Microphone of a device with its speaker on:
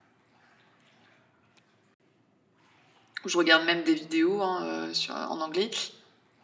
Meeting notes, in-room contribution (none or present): present